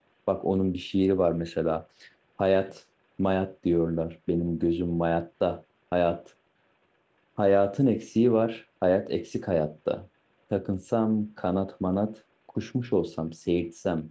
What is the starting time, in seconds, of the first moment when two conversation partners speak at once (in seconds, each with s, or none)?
none